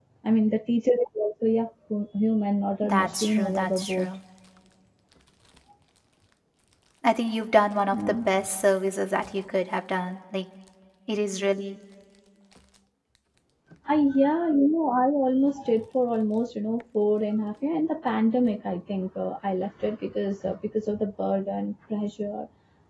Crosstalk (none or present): present